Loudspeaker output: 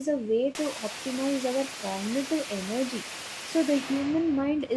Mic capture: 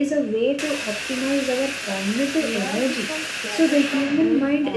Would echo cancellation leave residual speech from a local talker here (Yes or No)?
Yes